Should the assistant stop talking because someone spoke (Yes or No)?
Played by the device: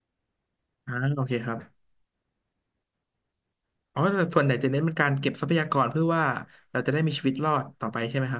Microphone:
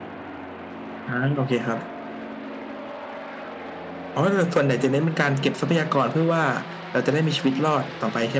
No